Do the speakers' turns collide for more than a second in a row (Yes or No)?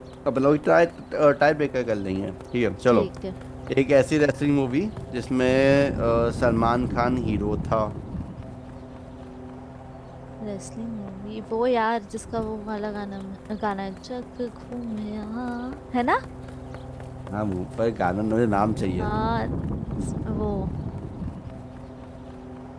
No